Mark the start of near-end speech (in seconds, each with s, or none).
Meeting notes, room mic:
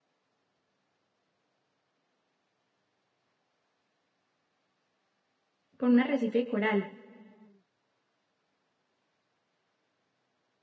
5.8 s